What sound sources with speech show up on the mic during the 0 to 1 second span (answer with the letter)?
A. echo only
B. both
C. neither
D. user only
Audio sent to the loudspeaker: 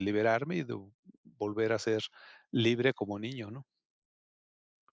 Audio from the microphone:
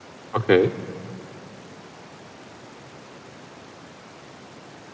D